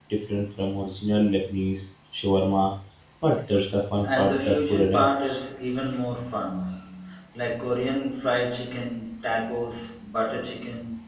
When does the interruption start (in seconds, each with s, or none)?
4.0 s